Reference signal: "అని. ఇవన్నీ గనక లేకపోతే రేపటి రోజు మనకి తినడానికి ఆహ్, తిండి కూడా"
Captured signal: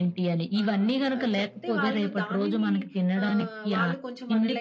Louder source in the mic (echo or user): echo